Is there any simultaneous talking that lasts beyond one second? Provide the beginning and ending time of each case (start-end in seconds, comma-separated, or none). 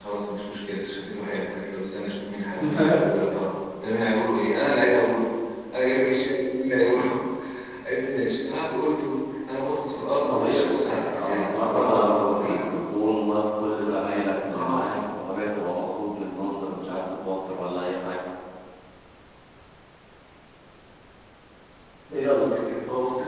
10.3-12.7